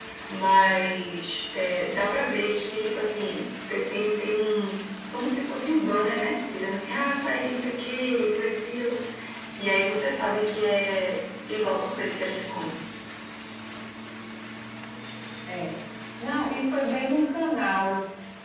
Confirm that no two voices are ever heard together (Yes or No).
Yes